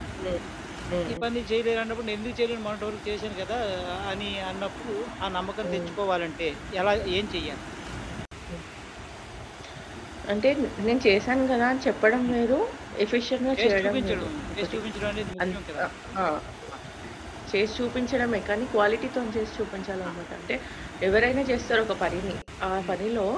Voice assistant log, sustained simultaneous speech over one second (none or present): present